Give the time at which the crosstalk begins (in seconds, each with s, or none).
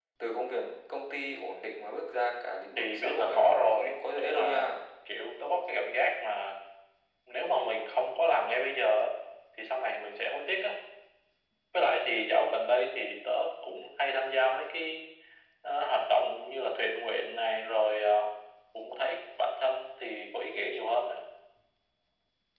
2.8 s